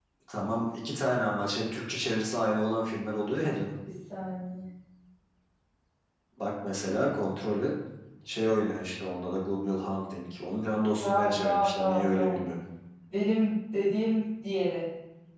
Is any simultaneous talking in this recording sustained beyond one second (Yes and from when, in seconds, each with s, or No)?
Yes, from 11.0 s